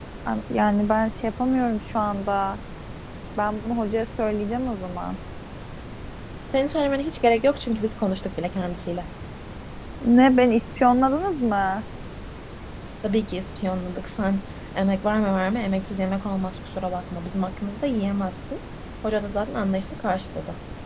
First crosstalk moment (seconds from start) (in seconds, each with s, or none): none